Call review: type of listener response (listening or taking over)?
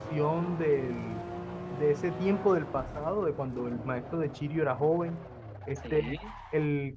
listening